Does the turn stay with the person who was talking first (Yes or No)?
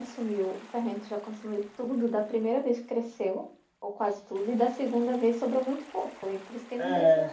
No